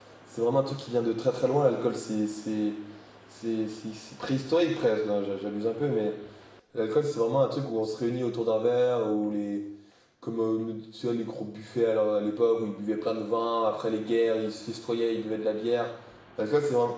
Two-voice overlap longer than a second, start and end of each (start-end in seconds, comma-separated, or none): none